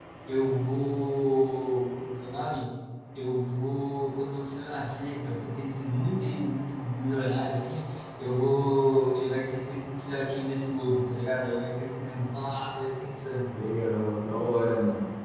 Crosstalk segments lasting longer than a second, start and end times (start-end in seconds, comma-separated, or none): none